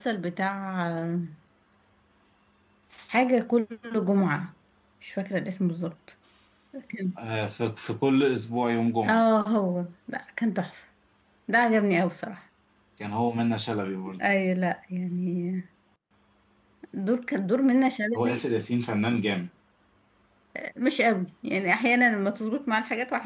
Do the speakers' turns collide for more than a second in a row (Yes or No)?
No